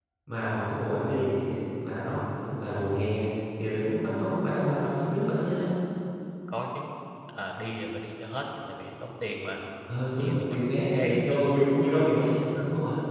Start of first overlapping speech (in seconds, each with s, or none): 10.2 s